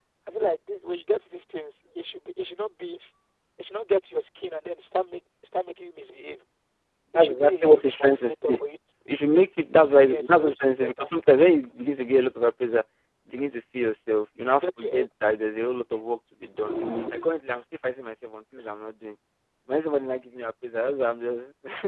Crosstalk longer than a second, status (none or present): present